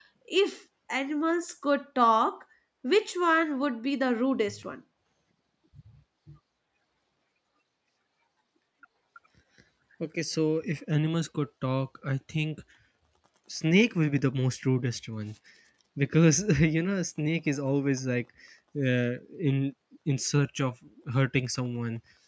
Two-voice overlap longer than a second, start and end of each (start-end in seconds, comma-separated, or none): none